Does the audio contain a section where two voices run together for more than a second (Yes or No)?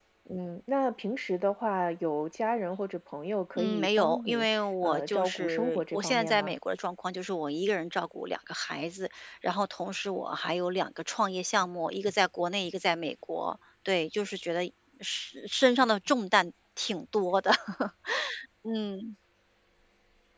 Yes